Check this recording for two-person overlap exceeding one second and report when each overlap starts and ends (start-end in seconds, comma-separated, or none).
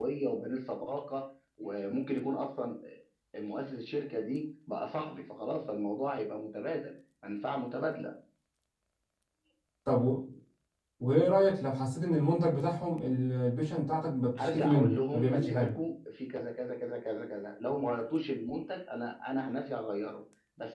14.4-15.7